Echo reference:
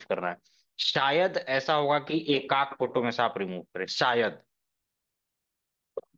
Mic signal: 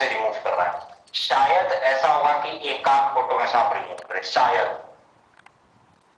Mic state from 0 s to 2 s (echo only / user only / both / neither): echo only